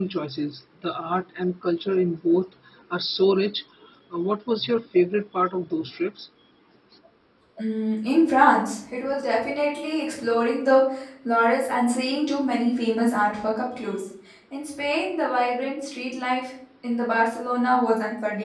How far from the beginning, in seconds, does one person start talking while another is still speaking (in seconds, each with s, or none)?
none